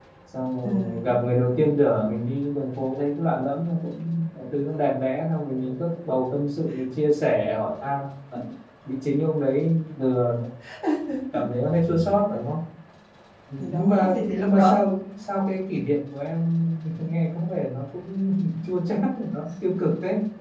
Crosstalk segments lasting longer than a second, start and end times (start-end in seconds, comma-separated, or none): 13.6-14.8